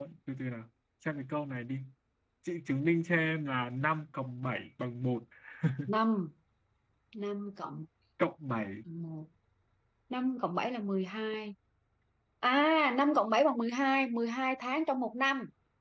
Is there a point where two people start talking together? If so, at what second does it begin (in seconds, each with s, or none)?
none